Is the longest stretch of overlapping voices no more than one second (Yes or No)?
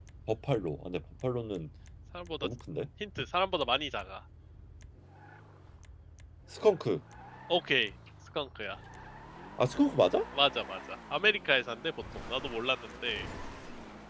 Yes